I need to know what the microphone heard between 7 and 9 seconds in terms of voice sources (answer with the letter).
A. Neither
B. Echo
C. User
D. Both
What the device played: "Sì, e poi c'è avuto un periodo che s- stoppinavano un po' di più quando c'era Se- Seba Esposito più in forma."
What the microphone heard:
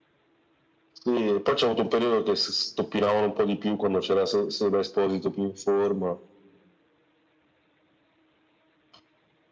A